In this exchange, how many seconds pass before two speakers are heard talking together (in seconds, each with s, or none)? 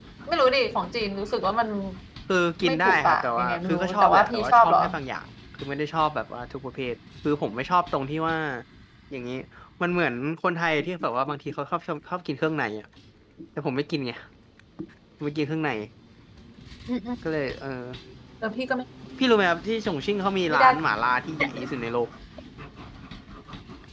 2.6 s